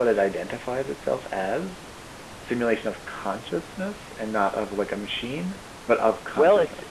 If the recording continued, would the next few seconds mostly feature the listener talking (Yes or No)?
Yes